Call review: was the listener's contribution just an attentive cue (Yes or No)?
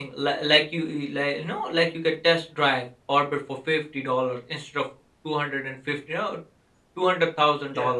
Yes